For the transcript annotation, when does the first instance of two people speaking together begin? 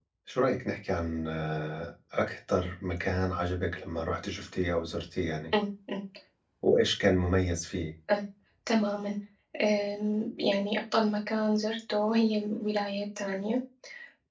none

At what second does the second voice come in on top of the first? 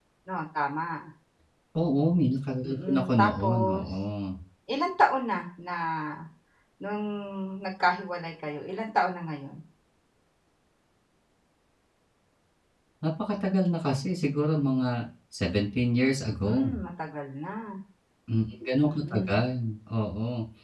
2.7 s

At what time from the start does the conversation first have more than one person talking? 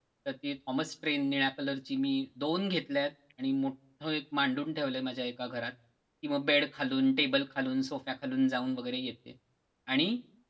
none

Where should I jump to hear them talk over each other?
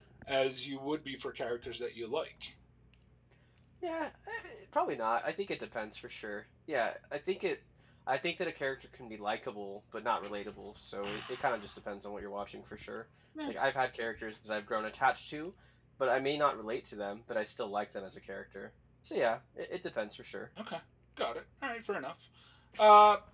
none

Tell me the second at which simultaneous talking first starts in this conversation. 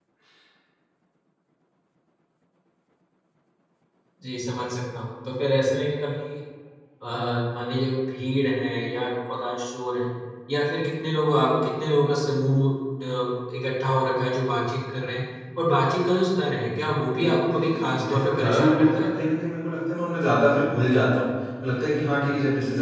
17.1 s

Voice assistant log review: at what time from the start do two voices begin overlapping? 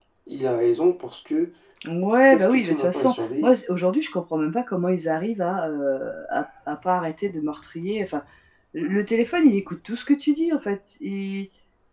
2.2 s

